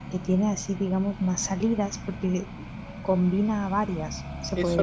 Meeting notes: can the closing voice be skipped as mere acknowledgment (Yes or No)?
No